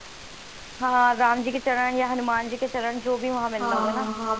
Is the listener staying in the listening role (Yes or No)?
No